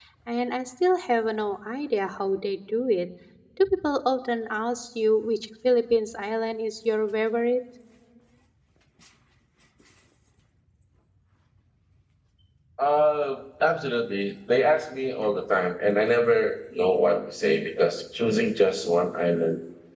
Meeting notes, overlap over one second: none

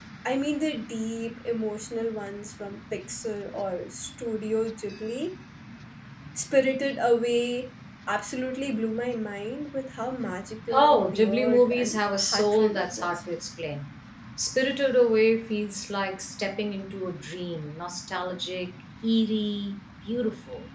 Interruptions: present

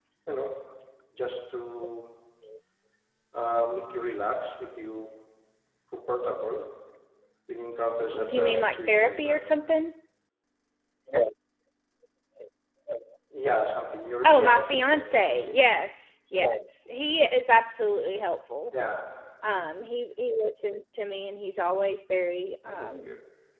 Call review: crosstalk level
present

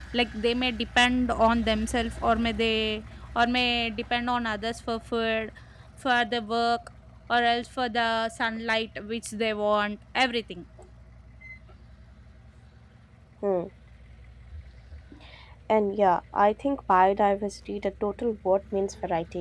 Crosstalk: none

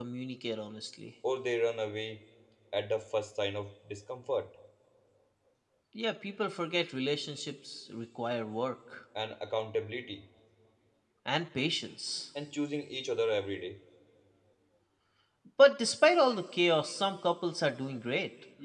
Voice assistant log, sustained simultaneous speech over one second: none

